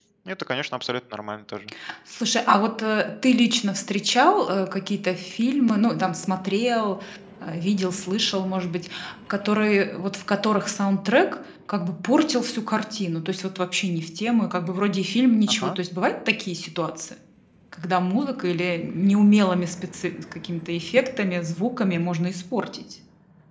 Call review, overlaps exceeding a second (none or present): none